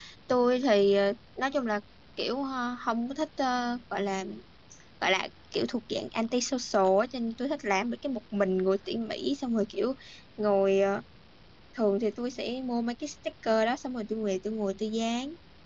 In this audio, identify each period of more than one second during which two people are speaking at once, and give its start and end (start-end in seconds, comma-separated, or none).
none